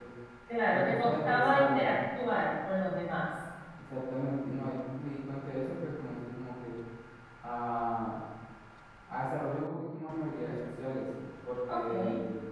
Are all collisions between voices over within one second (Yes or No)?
No